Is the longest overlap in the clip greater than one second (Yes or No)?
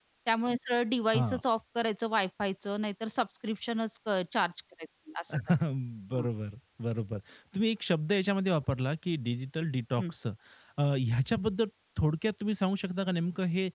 No